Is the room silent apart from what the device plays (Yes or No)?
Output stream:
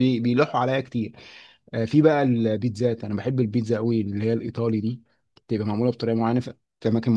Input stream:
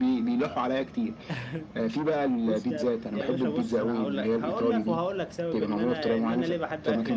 No